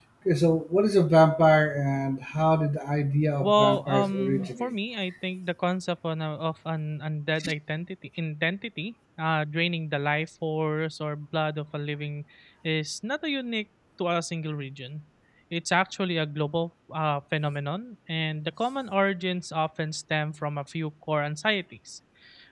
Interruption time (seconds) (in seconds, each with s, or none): 3.4 s